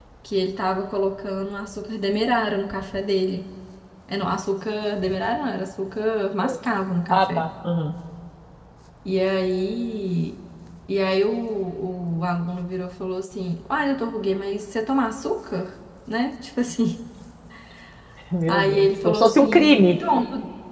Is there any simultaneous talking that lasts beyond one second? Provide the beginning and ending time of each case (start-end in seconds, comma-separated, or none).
18.5-19.9